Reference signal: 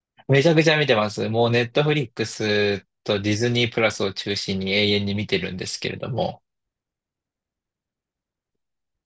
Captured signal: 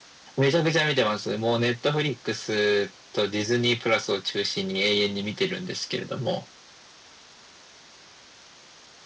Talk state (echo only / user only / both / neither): echo only